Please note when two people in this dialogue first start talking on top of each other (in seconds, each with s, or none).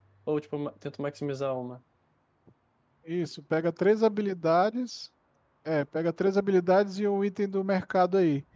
none